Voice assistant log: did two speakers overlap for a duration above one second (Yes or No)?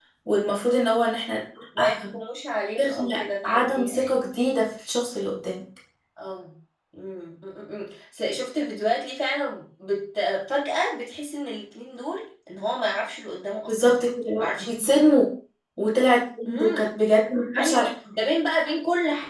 Yes